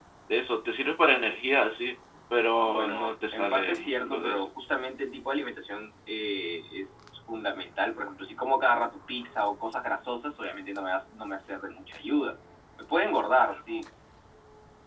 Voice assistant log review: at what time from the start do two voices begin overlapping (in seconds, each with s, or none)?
2.6 s